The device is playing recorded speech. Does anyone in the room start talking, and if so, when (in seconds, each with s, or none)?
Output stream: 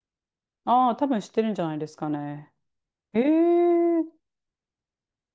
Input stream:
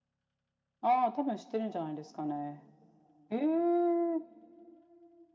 none